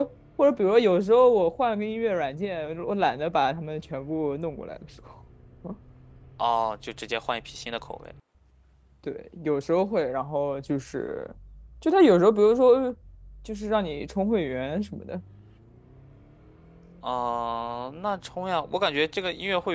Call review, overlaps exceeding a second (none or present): none